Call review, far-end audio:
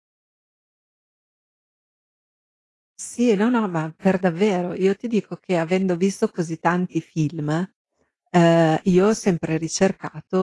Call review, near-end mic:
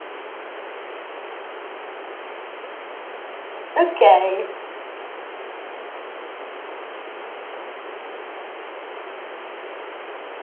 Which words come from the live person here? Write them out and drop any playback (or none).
Okay.